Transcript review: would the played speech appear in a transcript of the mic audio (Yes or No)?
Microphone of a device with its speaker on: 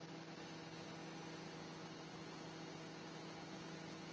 No